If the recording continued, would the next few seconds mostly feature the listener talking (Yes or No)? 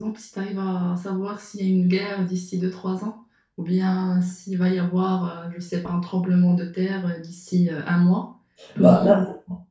Yes